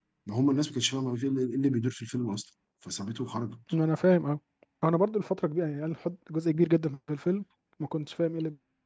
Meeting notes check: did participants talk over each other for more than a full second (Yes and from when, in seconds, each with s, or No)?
No